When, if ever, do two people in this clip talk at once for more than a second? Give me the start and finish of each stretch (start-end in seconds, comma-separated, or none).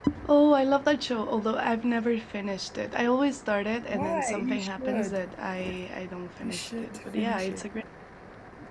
3.9-5.2, 6.4-7.6